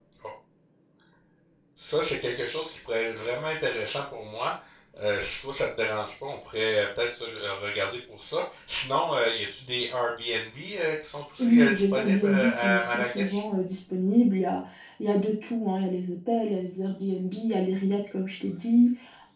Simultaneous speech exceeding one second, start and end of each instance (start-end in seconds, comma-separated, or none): 11.4-13.4